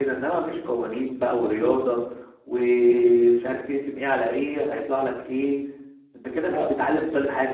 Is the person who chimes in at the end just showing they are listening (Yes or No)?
Yes